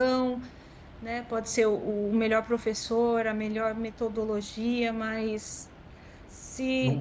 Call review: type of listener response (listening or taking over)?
listening